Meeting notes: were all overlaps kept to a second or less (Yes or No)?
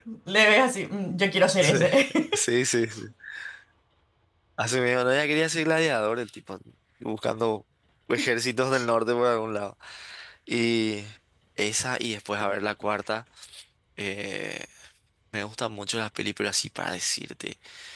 Yes